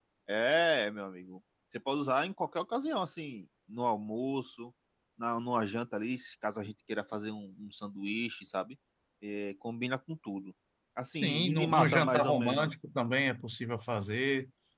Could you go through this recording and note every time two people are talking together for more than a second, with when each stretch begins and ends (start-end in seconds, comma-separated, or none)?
11.1-12.7